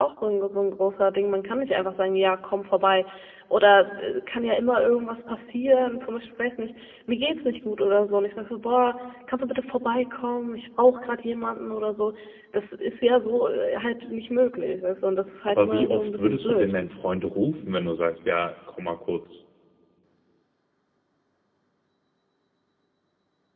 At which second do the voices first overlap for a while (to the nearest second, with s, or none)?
15 s